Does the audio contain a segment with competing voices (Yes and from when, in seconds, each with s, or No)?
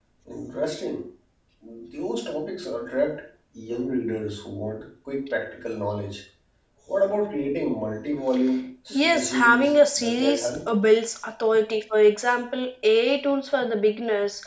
Yes, from 8.9 s